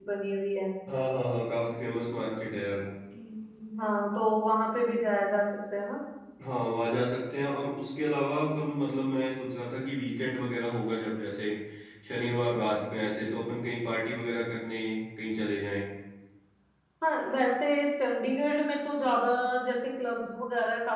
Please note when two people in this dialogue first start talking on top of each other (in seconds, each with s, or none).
none